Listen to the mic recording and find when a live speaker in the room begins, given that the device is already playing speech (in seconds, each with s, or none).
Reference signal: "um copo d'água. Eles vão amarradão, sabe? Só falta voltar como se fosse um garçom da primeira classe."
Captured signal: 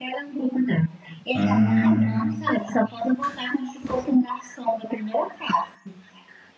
1.3 s